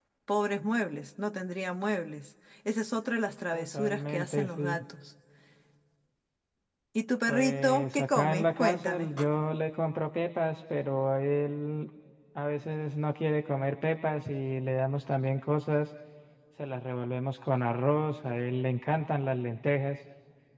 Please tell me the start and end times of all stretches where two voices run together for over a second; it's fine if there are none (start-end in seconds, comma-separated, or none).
3.5-4.8, 7.3-9.1